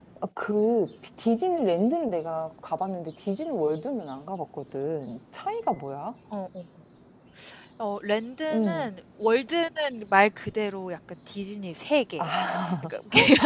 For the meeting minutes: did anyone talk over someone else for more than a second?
No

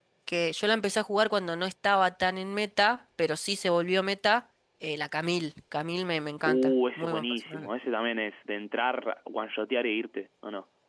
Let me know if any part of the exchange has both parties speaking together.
Yes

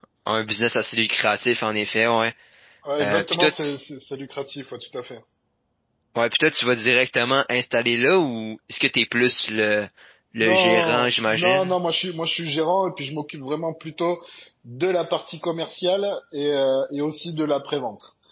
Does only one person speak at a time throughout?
No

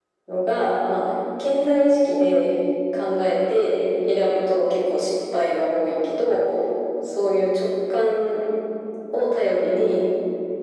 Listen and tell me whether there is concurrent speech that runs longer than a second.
No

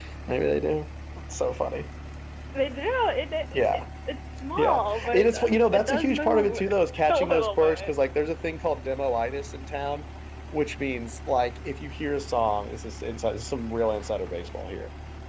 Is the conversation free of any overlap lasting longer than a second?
No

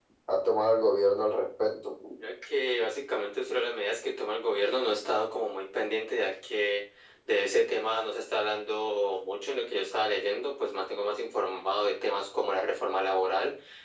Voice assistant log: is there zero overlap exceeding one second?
Yes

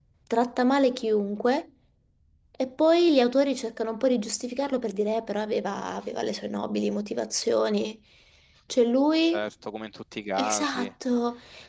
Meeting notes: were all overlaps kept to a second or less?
Yes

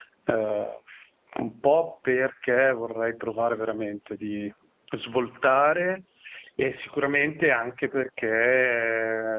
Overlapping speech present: No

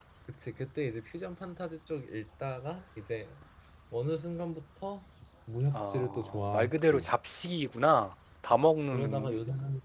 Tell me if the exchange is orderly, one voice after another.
No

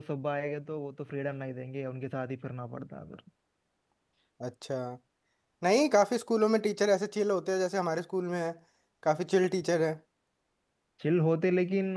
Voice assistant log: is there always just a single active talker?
Yes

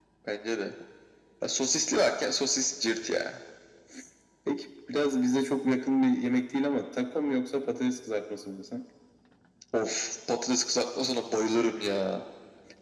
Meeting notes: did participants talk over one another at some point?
No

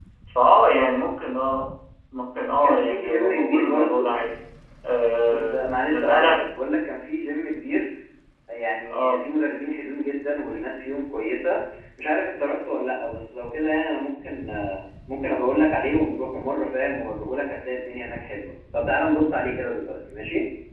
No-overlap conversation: No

